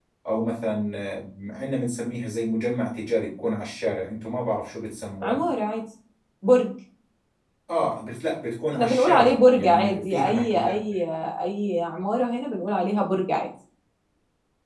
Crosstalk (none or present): present